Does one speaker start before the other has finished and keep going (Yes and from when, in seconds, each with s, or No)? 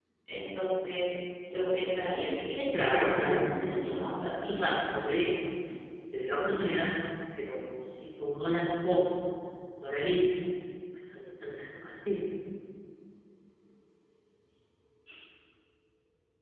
Yes, from 2.5 s